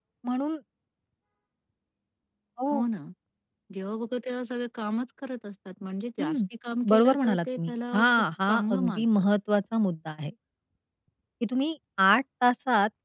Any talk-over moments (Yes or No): Yes